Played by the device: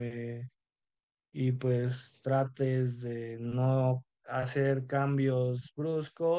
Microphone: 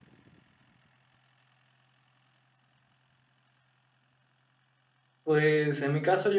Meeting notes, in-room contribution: present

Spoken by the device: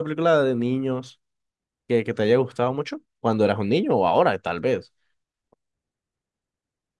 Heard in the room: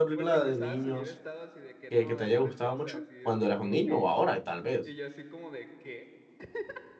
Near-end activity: present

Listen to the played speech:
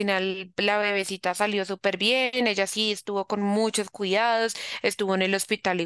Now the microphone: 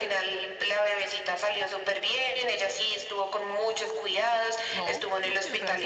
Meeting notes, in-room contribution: present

